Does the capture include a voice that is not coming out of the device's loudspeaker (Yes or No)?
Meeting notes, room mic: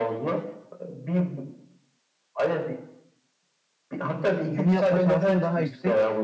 Yes